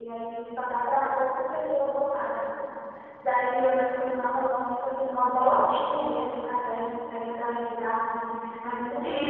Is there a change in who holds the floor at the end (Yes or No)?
Yes